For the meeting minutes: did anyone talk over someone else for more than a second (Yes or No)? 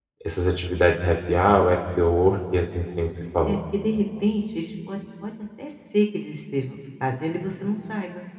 No